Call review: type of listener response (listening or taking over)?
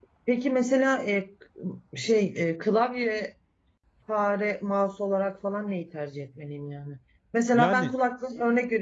listening